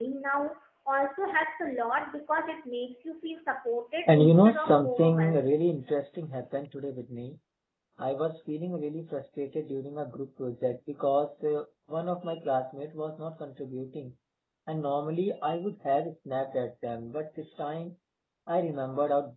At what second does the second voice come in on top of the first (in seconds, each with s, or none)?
4.1 s